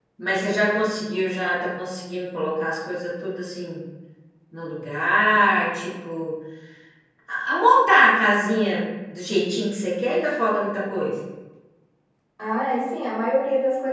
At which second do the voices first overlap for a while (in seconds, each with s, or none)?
none